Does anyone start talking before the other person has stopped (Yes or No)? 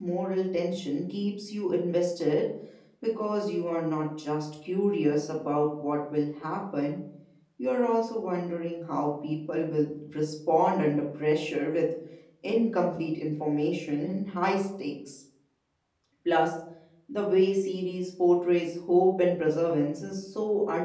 No